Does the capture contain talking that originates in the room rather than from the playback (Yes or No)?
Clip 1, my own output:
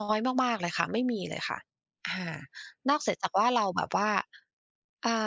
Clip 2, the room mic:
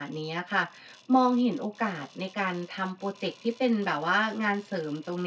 Yes